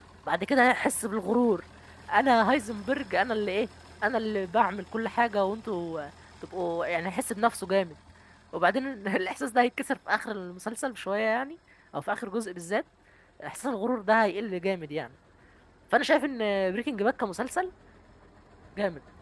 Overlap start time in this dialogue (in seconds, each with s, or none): none